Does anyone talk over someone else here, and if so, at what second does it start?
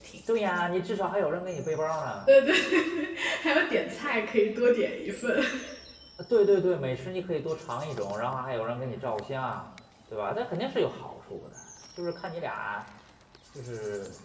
none

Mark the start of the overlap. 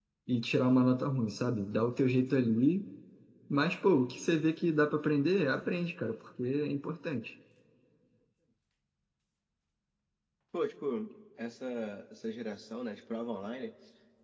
none

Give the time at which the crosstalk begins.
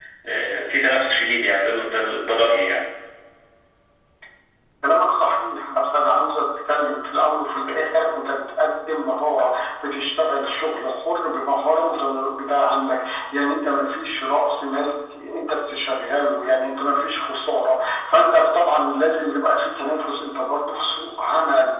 none

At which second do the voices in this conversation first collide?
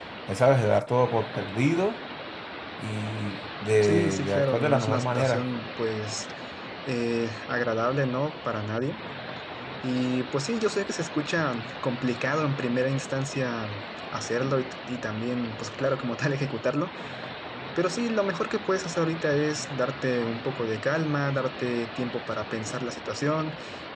3.8 s

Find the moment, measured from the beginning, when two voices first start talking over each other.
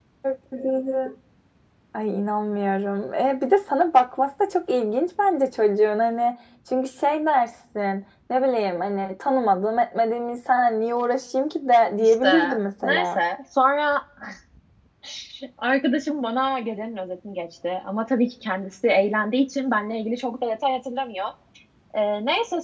12.0 s

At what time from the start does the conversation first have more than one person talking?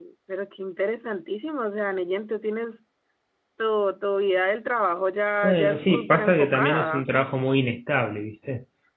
5.4 s

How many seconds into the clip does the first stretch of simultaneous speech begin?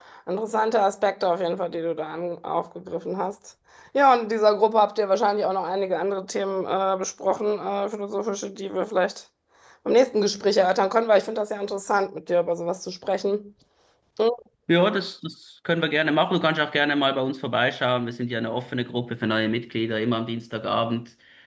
none

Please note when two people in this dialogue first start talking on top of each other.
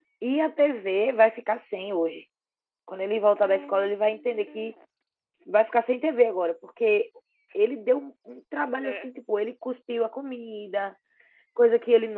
3.4 s

